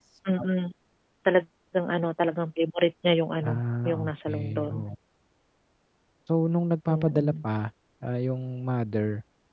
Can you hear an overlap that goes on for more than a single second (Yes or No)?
Yes